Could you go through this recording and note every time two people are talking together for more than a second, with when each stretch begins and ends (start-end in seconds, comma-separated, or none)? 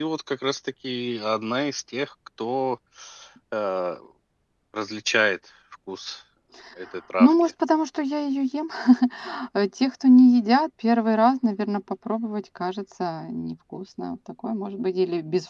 none